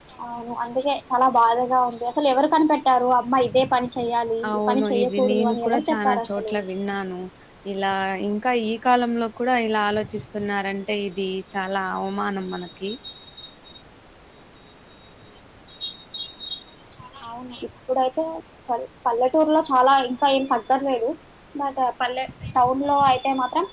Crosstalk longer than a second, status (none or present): present